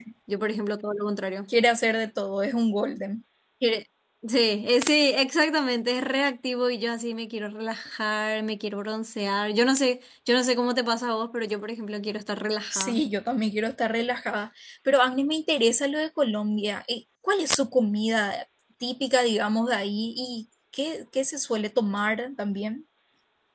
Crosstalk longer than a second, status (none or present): none